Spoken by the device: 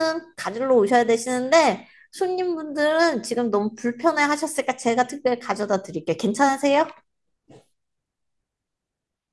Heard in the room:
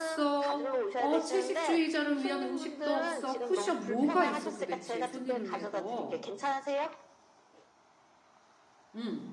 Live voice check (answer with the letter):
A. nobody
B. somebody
B